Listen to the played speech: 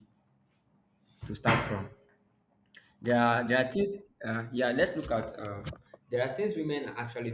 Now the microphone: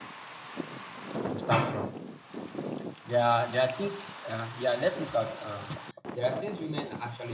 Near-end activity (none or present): none